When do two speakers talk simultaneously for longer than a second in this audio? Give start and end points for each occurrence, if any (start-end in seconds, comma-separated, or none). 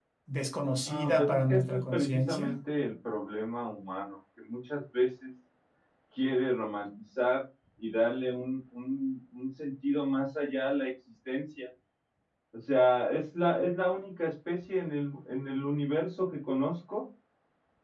0.8-2.6